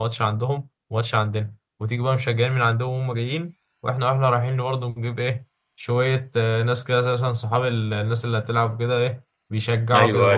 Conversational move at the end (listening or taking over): taking over